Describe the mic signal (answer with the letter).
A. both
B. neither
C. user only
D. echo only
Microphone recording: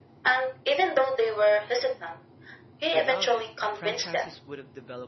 A